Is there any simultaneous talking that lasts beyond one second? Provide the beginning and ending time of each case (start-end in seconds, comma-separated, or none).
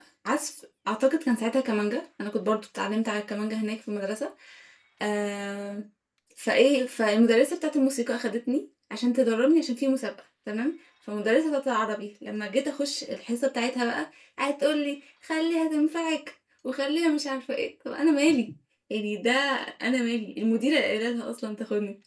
none